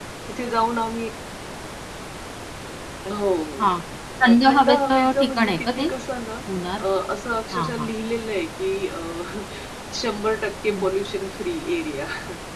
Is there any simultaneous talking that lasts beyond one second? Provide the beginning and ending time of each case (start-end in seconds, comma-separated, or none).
4.2-5.9